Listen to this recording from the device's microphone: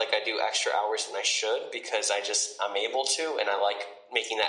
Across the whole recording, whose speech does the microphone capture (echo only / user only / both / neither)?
echo only